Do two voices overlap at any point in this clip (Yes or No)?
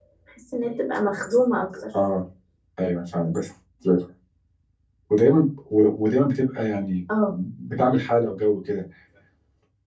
No